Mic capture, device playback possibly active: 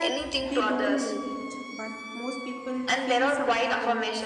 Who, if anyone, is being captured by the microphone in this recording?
both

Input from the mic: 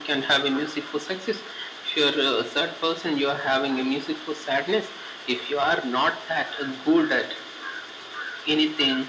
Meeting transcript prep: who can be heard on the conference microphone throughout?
echo only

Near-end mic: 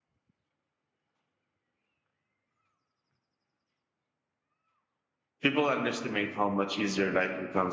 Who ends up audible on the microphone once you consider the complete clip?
user only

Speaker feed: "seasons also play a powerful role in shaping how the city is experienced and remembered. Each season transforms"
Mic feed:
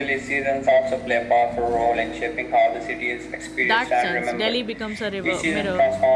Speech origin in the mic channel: both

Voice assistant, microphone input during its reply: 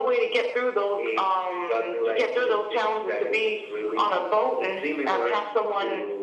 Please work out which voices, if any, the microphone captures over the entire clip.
echo only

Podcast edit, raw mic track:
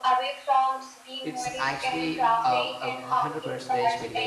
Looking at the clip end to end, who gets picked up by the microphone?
both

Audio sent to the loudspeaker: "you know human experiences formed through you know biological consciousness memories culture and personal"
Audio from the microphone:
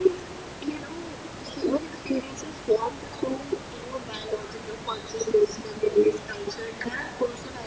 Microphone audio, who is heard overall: echo only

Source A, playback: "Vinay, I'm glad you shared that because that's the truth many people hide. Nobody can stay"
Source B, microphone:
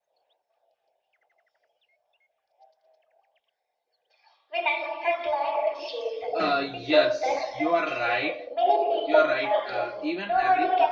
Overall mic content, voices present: both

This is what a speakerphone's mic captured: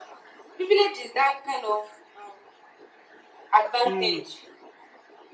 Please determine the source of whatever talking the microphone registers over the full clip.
both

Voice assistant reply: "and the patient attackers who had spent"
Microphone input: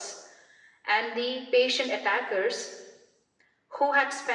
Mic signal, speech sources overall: echo only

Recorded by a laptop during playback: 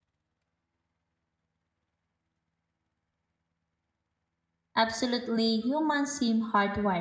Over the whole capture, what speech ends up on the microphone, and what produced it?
user only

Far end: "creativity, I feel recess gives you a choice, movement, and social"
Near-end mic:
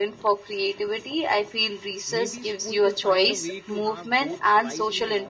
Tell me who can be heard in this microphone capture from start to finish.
both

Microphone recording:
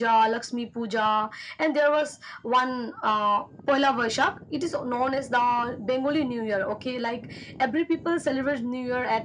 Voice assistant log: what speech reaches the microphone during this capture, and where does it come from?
echo only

